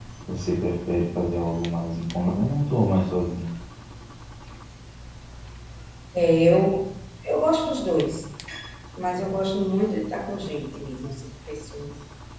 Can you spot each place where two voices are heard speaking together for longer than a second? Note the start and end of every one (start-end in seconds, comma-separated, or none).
none